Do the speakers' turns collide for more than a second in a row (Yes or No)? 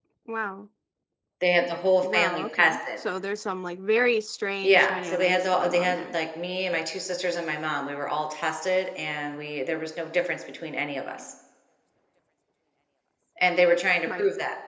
Yes